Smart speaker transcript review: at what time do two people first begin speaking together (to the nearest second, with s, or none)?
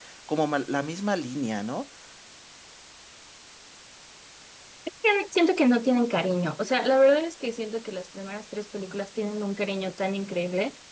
none